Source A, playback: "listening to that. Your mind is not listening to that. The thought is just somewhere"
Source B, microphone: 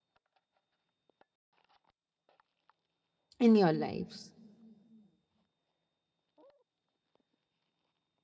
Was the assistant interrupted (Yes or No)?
Yes